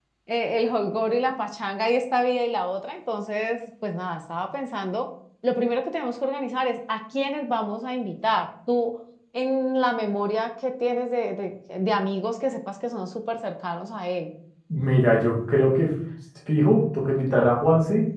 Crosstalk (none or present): none